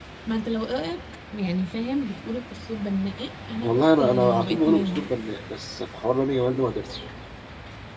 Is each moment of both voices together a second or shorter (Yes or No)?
No